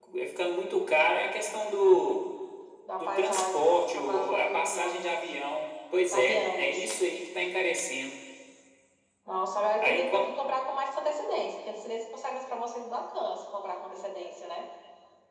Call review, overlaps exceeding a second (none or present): present